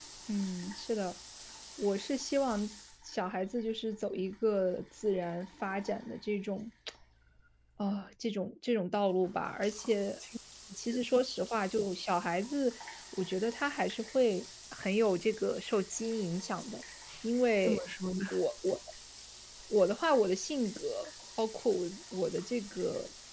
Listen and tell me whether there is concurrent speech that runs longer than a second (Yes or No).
No